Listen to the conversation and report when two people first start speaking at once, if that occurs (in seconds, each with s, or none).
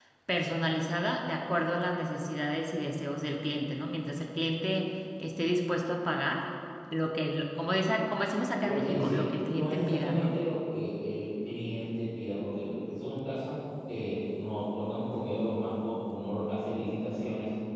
8.6 s